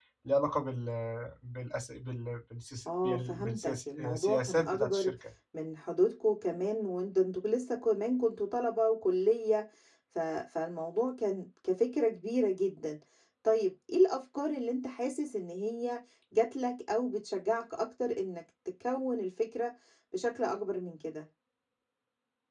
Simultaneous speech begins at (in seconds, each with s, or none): 2.9 s